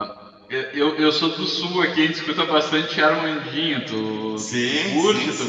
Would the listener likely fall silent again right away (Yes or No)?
No